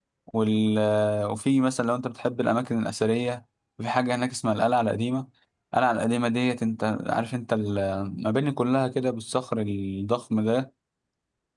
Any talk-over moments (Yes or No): No